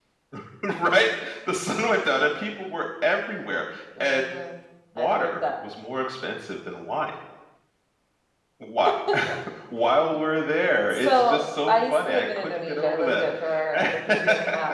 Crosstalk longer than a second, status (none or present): present